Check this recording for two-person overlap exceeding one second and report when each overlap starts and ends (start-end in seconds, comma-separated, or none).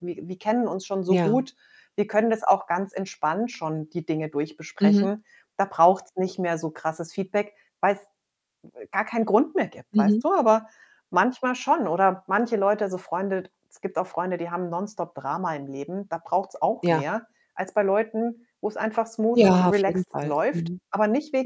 19.3-20.6